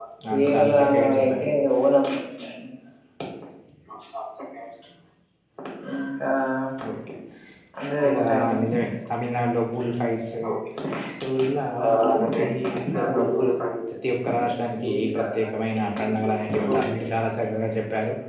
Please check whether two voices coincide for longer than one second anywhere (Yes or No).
Yes